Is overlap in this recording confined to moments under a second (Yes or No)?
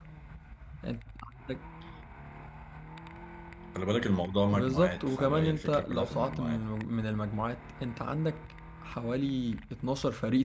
No